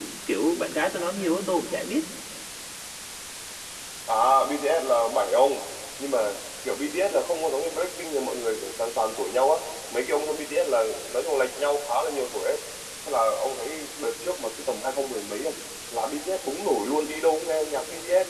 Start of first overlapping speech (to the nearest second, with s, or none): none